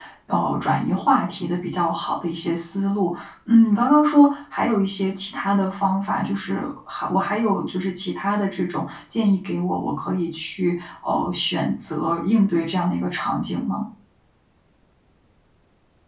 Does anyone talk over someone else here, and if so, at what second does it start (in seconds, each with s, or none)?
none